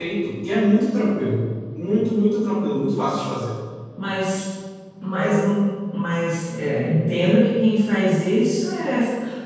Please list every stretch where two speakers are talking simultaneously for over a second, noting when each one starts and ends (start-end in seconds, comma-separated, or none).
none